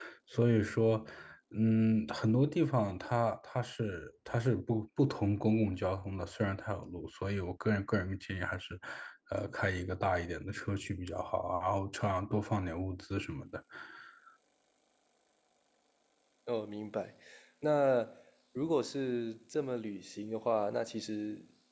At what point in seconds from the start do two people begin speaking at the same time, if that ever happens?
none

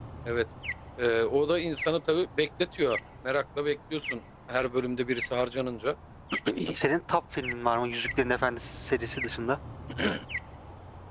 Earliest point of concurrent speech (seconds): none

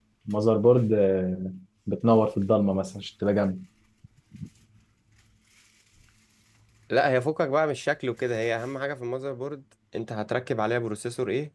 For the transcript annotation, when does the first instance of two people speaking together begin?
none

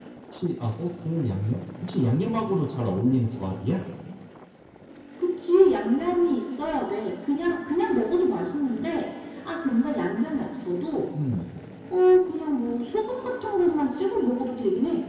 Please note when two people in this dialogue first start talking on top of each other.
none

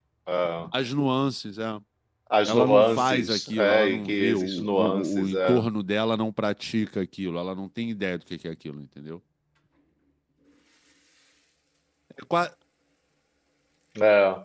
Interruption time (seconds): 2 s

